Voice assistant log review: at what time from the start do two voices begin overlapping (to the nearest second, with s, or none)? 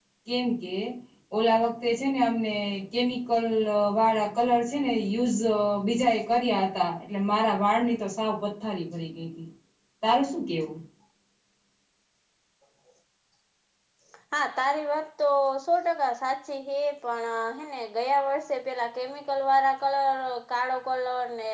none